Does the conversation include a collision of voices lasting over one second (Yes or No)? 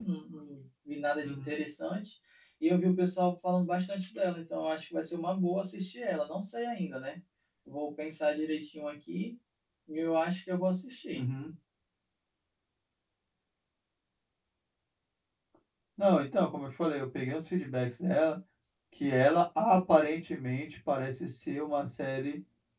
No